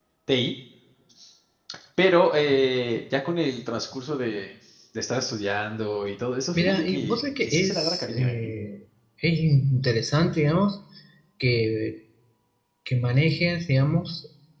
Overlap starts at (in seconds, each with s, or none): 6.5 s